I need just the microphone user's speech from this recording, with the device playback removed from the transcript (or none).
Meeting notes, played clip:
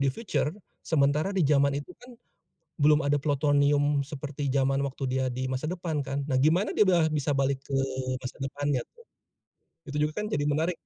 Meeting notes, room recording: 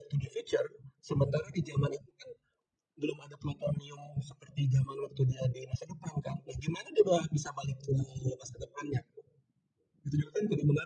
none